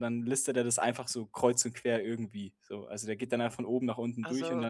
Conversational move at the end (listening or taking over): listening